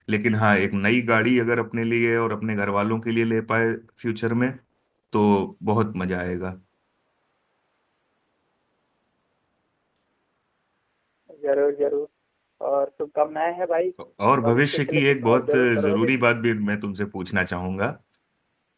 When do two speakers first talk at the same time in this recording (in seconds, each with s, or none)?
14.4 s